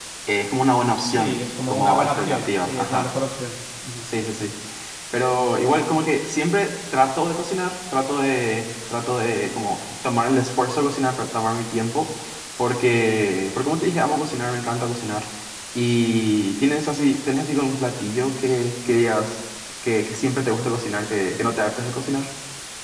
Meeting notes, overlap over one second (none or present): present